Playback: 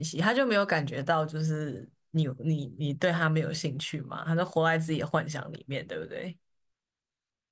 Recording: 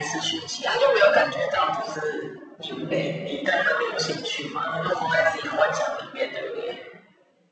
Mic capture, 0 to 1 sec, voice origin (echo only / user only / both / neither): echo only